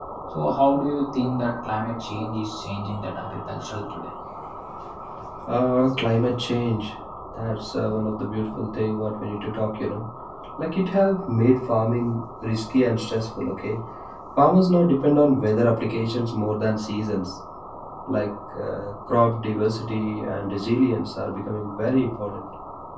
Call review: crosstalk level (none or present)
none